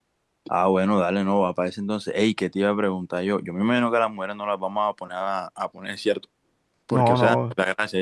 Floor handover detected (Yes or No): No